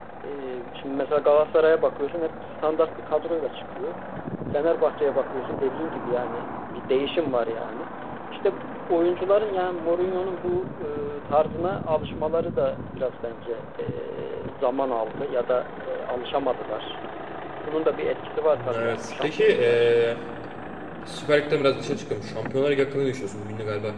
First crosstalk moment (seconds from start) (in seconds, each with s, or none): 18.6 s